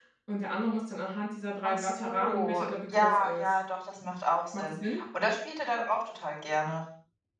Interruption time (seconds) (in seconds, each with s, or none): 1.6 s